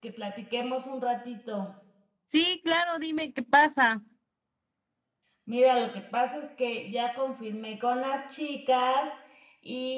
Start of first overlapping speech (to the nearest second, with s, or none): none